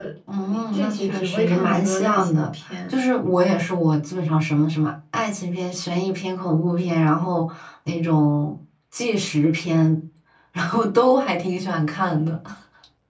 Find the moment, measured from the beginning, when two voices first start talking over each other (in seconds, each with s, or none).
0.7 s